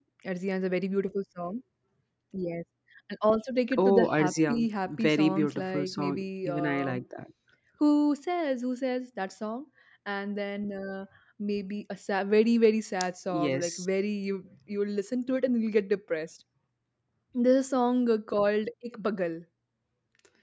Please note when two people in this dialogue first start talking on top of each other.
3.8 s

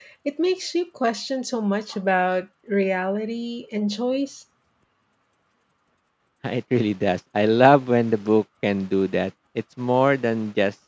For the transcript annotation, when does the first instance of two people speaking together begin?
none

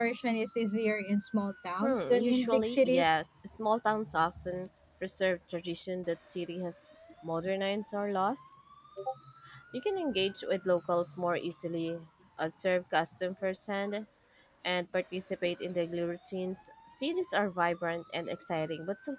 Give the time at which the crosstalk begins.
1.8 s

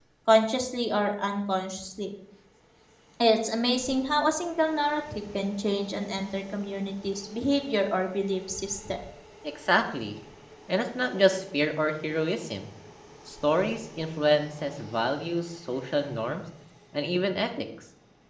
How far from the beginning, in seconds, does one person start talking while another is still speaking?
none

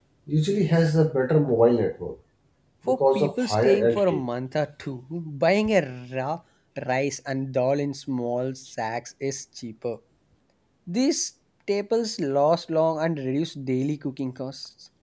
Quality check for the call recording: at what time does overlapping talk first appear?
2.9 s

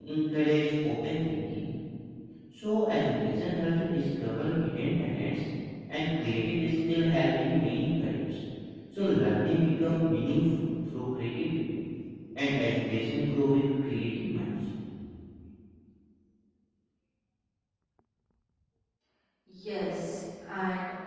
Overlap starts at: none

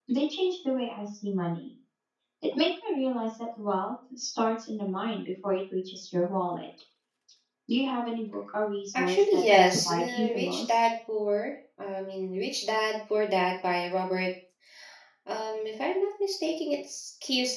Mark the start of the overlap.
8.9 s

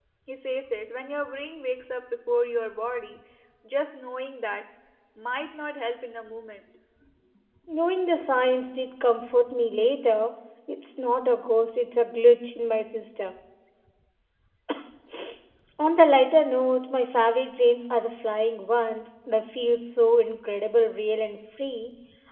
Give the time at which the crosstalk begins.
none

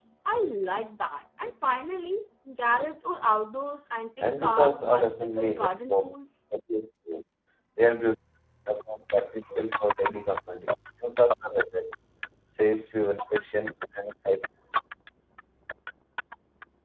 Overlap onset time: 4.2 s

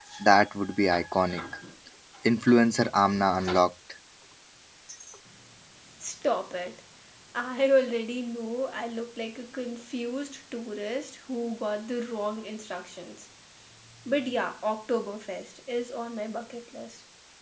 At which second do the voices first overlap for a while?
none

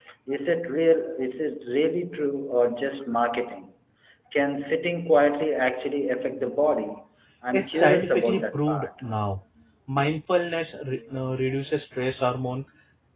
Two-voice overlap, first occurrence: 7.5 s

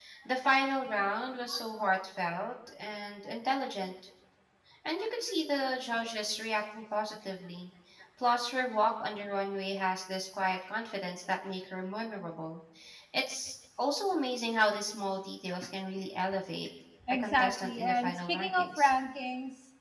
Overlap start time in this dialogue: 17.0 s

